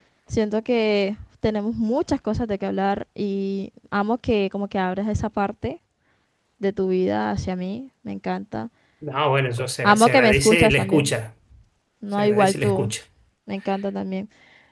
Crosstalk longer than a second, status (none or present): present